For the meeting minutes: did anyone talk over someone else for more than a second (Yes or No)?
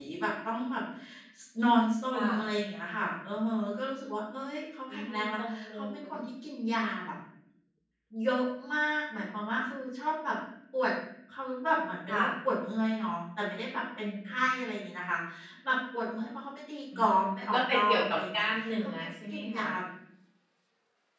Yes